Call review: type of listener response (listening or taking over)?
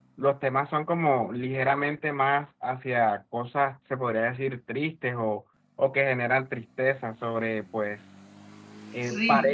listening